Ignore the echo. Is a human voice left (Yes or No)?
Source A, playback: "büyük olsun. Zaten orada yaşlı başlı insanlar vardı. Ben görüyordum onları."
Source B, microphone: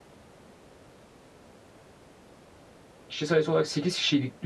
Yes